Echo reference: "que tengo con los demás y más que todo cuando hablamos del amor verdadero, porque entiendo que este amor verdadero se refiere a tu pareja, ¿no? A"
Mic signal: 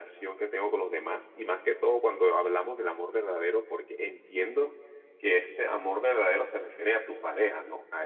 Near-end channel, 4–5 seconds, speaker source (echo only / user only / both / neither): echo only